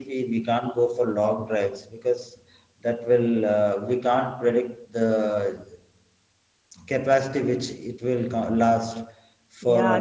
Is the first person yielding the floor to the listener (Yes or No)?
Yes